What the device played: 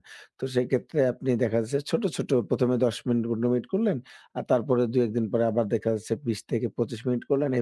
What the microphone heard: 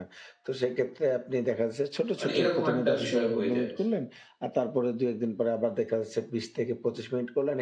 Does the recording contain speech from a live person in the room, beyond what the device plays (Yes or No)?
Yes